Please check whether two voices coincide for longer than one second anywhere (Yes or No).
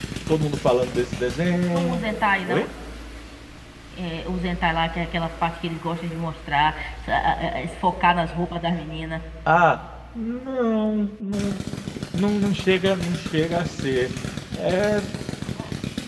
No